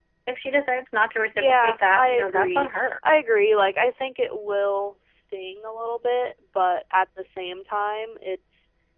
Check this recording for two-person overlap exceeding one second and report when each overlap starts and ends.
1.4-2.9

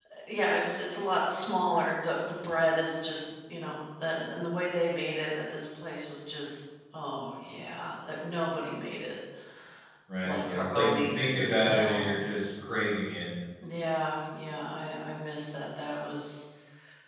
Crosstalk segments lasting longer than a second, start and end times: 10.2-12.1

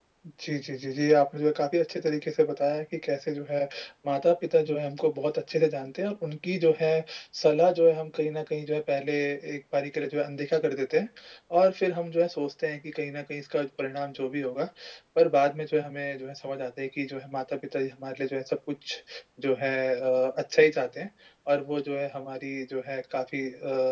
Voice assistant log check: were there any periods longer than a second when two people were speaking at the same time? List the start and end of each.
none

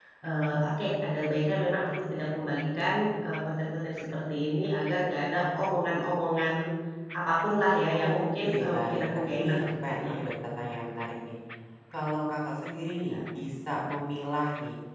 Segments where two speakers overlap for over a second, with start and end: 7.9-10.2

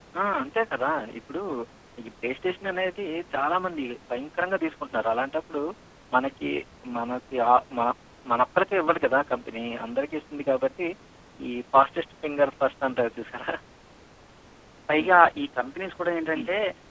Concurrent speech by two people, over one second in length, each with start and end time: none

